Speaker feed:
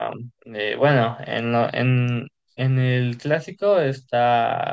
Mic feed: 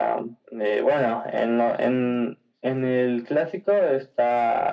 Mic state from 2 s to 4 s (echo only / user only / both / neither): echo only